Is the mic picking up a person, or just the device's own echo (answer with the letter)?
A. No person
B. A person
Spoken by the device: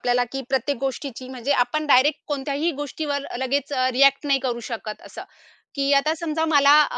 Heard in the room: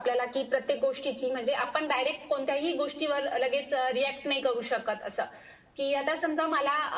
A